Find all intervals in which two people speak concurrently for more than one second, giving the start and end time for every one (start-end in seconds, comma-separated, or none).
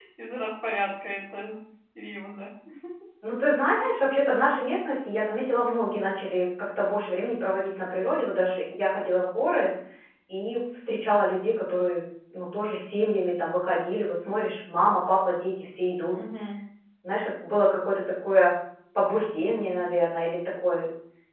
none